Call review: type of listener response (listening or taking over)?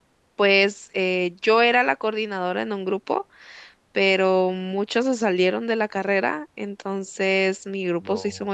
listening